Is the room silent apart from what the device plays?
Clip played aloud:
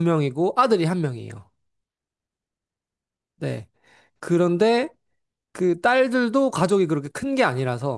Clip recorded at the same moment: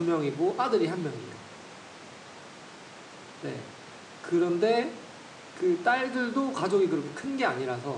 Yes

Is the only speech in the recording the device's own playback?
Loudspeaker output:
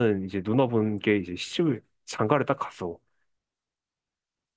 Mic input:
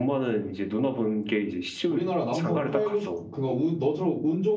No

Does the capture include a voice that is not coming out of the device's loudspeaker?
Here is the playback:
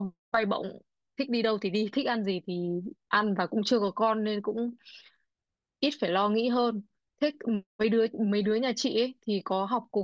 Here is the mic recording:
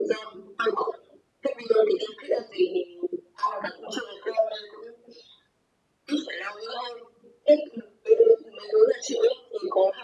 No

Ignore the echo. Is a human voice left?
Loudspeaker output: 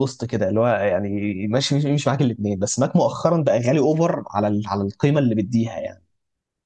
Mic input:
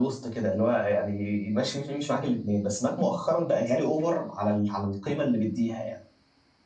No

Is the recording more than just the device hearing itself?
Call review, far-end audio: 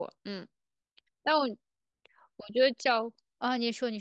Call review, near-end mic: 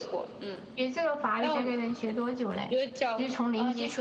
Yes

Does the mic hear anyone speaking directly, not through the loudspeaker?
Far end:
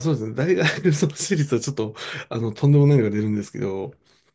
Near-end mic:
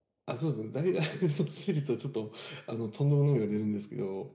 No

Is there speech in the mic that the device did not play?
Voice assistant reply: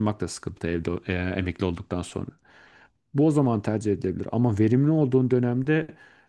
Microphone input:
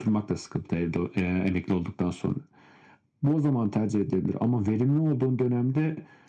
No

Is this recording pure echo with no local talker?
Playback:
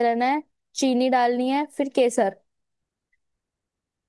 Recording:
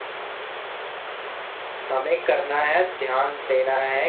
No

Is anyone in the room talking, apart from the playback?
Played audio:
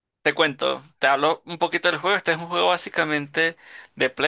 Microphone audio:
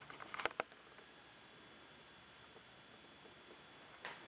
No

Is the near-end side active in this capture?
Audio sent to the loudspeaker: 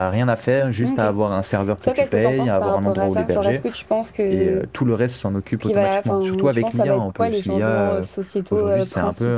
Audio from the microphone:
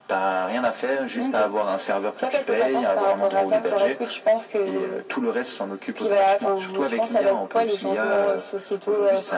No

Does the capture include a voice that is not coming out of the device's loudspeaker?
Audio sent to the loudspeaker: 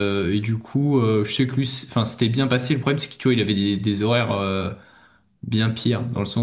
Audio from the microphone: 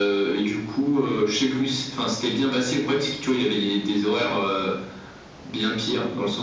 No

